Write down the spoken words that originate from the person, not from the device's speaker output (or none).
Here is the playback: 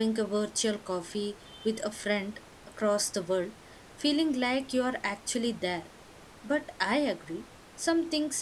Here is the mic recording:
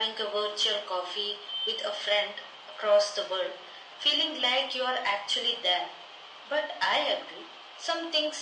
none